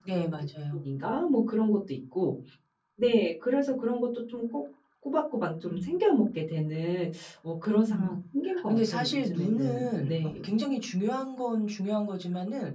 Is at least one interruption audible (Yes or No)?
Yes